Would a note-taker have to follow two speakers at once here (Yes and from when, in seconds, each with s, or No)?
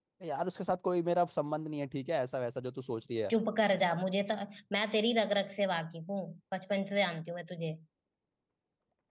No